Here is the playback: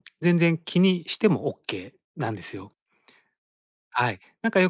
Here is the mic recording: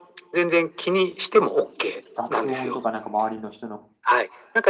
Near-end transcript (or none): 雑音とかなんか周りの人の、